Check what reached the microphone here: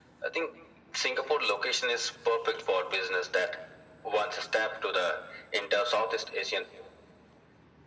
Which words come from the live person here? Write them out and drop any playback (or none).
none